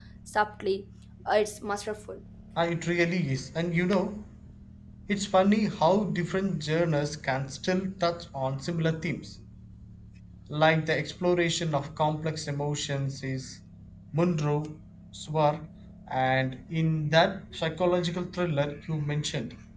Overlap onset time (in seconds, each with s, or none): none